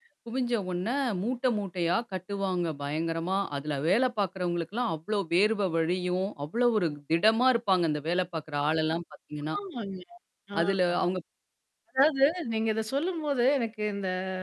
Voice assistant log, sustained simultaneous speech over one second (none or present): none